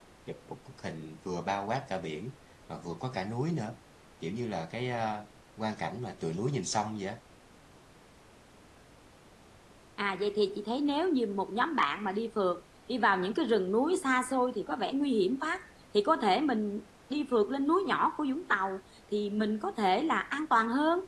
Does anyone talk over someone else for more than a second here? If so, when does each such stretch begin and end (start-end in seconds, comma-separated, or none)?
none